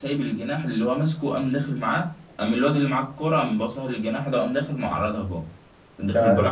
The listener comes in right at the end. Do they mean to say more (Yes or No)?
No